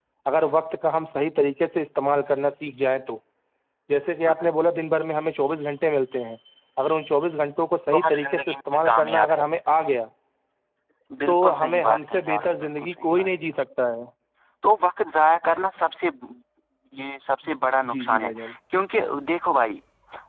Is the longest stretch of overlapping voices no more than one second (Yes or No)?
No